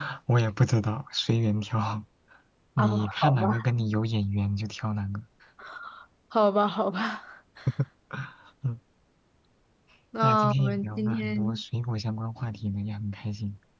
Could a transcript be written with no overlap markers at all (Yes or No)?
No